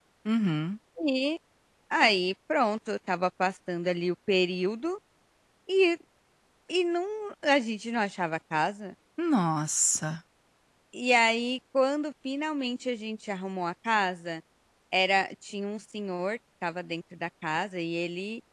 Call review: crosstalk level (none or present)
none